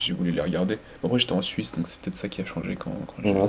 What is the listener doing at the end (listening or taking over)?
taking over